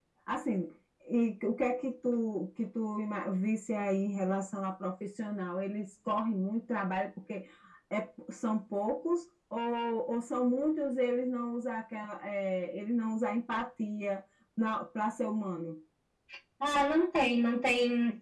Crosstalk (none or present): none